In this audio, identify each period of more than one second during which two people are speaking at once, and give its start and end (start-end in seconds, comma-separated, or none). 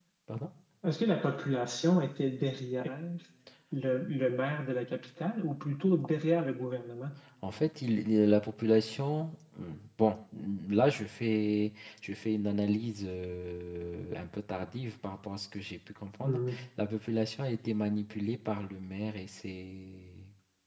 none